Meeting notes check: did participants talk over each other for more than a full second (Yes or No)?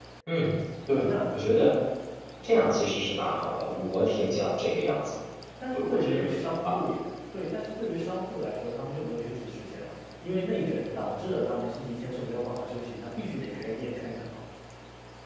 Yes